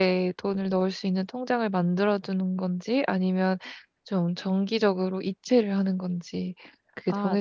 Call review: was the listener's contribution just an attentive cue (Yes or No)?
No